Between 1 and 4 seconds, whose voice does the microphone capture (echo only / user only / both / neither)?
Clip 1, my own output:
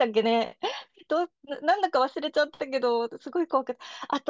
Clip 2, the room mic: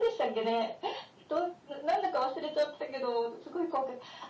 echo only